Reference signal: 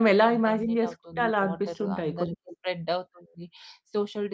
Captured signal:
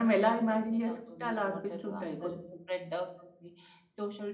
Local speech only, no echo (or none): none